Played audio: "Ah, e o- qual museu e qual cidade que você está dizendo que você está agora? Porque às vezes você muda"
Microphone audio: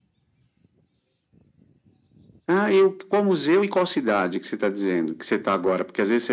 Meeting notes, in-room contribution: none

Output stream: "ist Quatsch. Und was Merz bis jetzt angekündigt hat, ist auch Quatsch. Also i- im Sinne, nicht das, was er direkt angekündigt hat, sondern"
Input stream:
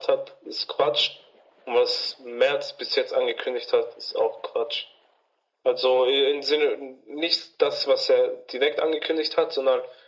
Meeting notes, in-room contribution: none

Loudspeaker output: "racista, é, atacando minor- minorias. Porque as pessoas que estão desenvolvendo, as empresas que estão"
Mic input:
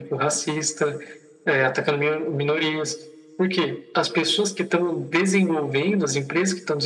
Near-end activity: none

